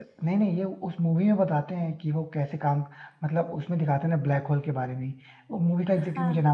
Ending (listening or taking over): listening